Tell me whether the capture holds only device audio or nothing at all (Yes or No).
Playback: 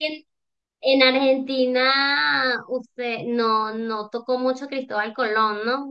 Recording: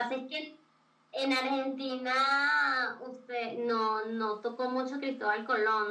Yes